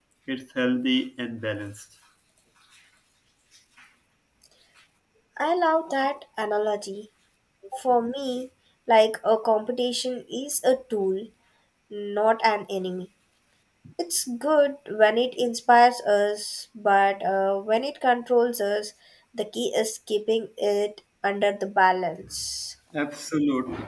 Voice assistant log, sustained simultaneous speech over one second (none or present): none